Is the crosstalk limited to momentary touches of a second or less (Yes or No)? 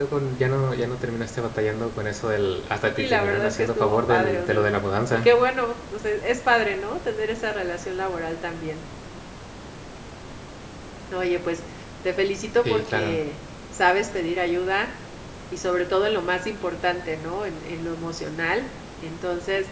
No